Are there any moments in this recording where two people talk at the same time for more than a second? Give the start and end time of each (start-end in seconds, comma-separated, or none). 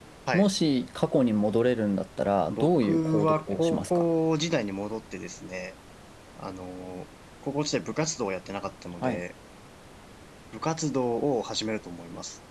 2.5-4.0